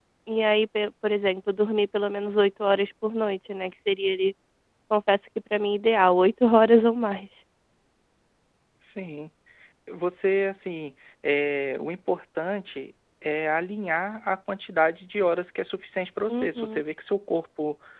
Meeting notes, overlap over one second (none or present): none